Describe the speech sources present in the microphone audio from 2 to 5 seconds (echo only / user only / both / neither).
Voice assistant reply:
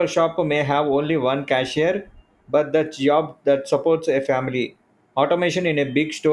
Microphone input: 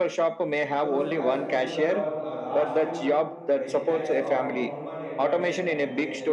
both